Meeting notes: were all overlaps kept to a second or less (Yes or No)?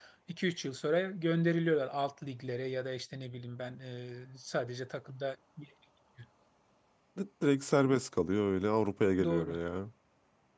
Yes